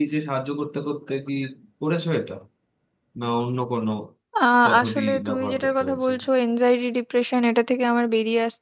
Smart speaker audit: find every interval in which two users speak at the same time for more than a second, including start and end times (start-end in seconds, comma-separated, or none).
4.7-6.1